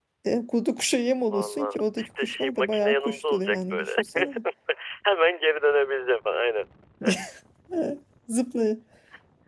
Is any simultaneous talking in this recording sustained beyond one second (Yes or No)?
Yes